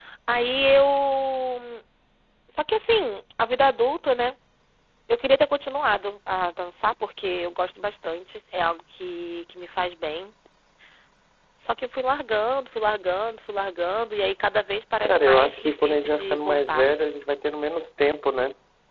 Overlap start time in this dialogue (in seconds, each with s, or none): 15.1 s